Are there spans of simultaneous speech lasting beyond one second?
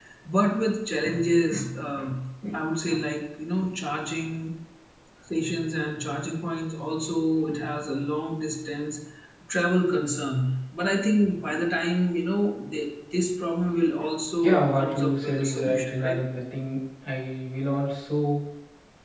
Yes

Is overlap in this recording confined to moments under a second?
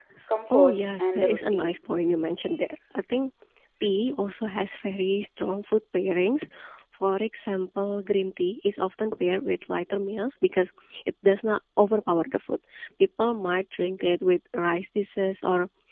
No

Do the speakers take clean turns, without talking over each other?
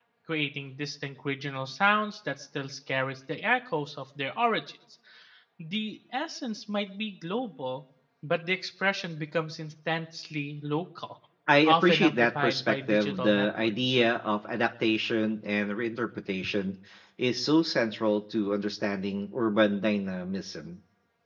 No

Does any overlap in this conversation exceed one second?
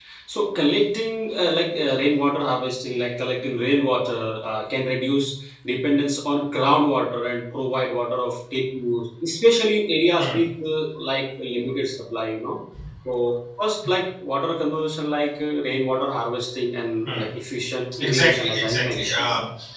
Yes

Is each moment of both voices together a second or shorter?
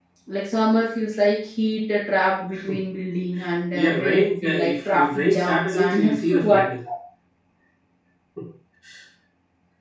No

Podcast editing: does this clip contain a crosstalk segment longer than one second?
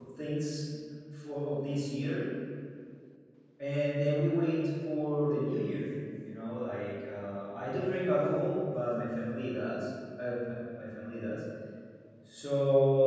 No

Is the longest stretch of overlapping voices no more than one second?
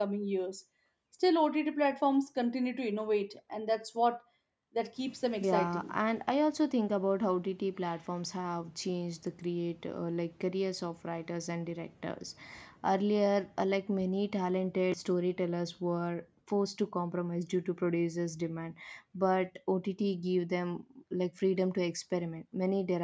Yes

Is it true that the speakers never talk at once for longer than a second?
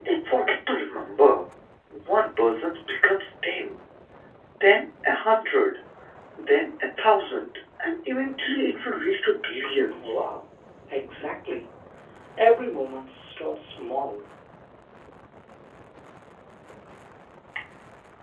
Yes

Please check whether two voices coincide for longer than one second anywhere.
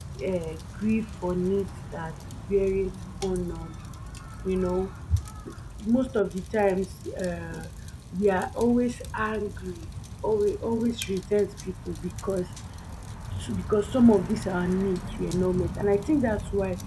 No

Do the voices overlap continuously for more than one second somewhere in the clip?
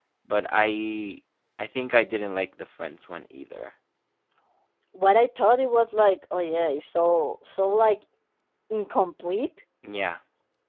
No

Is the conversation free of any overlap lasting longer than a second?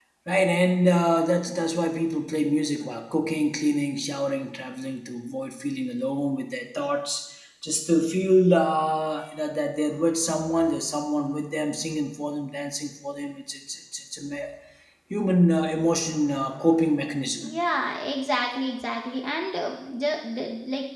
Yes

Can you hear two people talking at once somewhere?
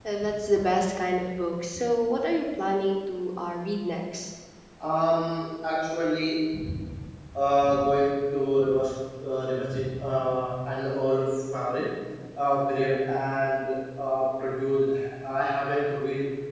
No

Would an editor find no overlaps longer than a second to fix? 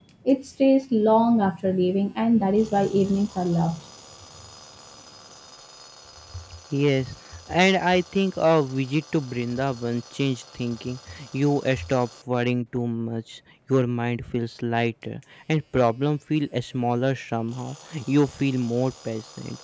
Yes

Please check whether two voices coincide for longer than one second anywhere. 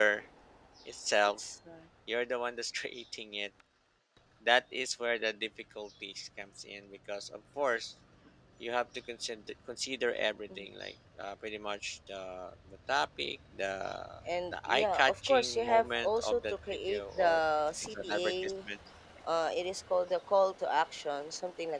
Yes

